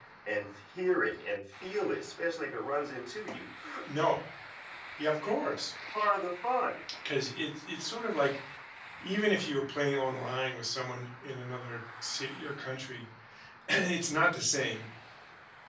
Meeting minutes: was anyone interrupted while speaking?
No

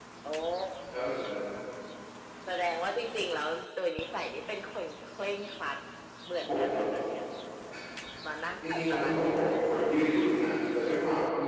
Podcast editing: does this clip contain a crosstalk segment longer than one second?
Yes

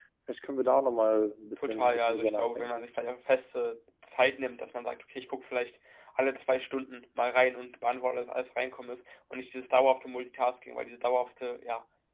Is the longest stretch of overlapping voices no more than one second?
No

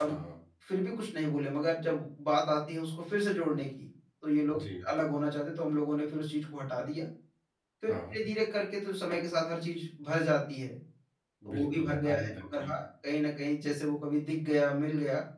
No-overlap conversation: No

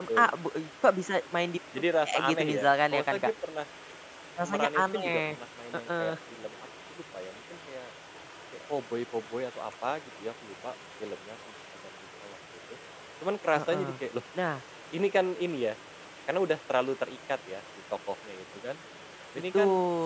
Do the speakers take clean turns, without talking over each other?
No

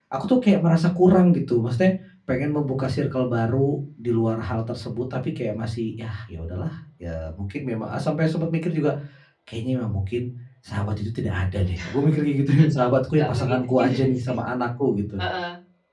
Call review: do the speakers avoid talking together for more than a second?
No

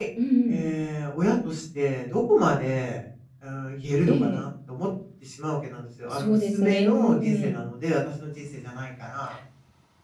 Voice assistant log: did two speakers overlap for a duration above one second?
Yes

